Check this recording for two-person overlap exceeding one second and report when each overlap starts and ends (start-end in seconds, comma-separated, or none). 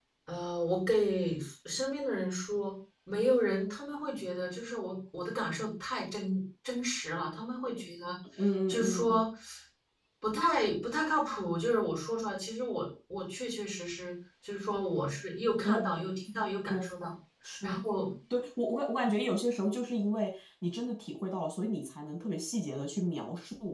none